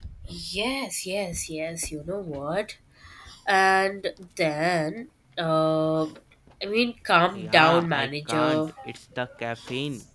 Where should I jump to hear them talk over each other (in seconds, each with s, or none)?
7.3 s